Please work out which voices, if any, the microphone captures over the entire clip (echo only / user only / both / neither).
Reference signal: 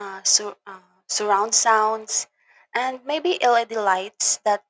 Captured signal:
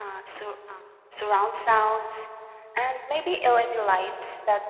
echo only